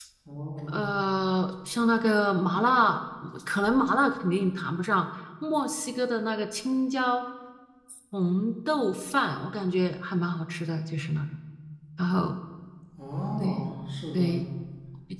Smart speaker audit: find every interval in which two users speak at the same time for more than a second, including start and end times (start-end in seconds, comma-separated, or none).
none